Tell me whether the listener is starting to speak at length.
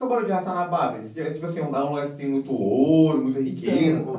Yes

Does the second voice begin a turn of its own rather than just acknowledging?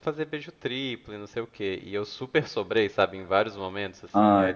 No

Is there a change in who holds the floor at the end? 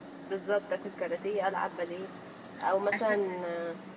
No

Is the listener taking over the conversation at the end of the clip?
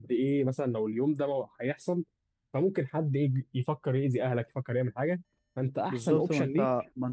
Yes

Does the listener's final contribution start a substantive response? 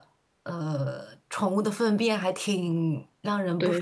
No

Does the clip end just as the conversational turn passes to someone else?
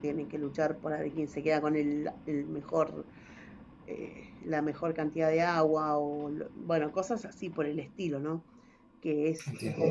No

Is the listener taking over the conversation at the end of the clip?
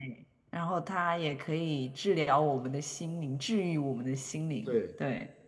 Yes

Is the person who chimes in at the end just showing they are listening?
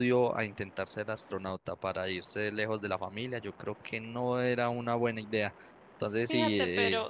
No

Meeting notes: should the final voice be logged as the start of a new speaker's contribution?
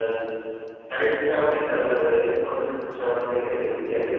No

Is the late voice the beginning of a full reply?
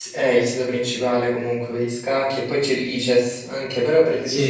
No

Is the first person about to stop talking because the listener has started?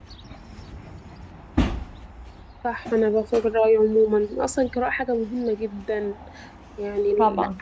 No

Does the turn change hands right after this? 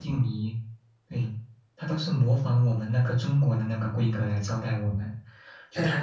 No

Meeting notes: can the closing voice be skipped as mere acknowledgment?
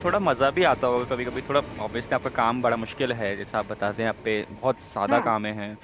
Yes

